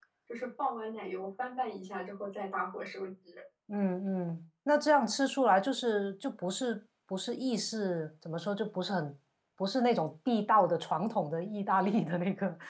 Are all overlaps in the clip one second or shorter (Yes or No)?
Yes